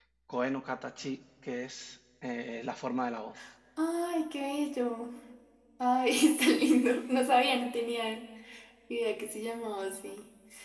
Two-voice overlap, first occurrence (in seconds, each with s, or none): none